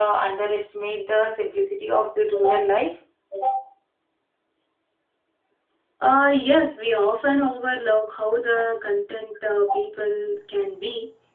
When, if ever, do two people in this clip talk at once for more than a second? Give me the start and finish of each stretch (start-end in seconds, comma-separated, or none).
none